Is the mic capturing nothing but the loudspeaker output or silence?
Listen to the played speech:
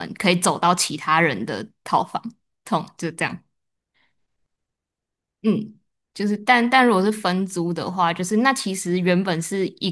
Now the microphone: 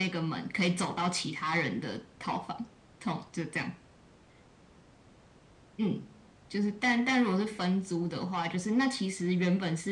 Yes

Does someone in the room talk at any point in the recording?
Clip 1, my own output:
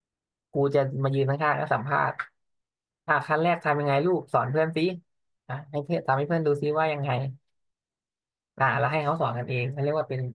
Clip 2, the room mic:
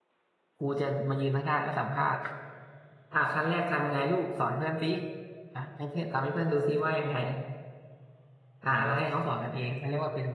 No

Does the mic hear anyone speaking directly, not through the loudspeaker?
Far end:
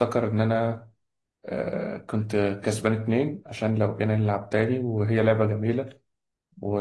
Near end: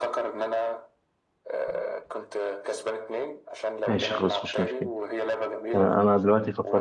Yes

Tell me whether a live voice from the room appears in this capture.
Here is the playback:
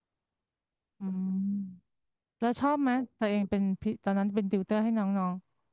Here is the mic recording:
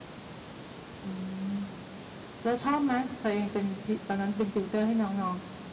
No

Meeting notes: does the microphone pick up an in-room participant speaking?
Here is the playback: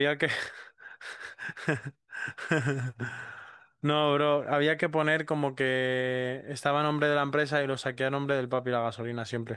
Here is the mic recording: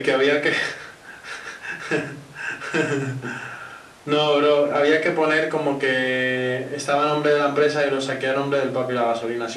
No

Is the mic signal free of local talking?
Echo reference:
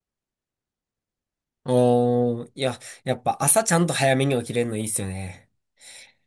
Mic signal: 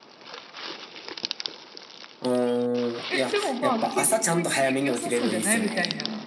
No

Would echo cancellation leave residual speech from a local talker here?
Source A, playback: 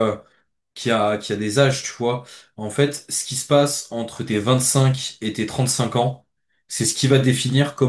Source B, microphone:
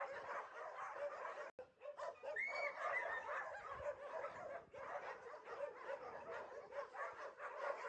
No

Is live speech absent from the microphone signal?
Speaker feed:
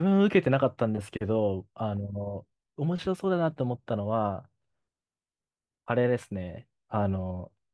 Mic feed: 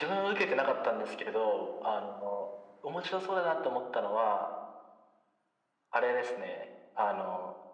Yes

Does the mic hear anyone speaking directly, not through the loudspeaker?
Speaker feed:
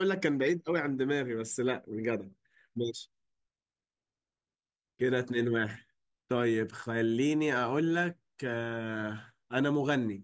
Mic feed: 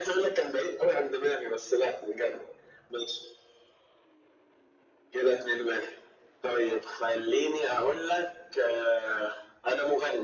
No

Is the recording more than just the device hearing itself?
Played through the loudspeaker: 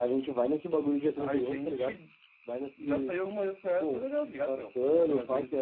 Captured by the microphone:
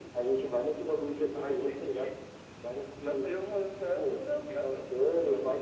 No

